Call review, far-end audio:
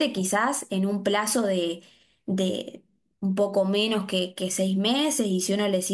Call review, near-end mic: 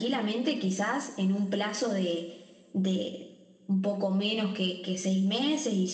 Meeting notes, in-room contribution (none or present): none